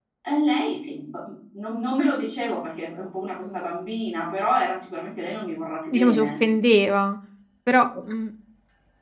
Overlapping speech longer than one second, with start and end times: none

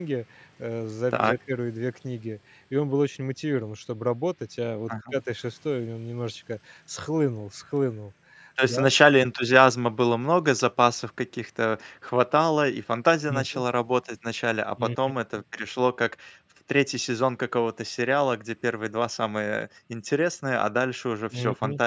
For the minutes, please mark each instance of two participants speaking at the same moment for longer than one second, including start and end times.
none

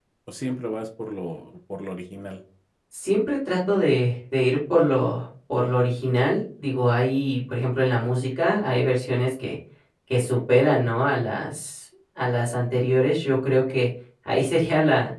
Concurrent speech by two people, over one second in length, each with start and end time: none

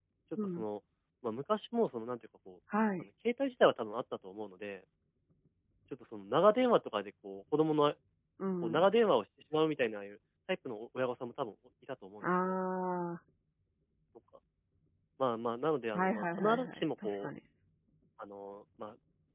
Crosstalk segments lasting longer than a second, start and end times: 15.9-17.3

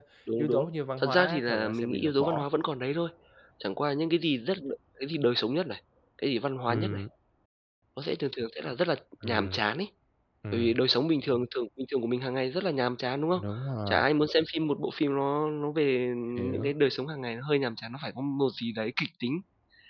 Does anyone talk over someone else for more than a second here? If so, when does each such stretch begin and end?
1.0-2.5

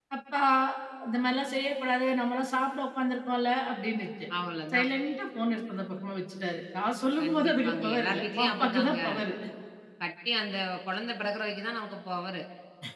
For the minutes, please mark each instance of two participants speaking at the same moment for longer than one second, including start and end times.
7.2-9.0

